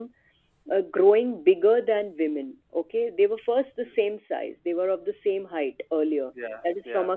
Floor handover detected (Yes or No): No